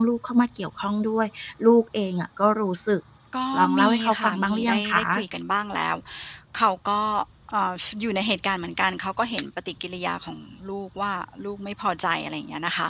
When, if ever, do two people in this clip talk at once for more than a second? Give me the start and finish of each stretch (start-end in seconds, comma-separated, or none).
3.6-5.0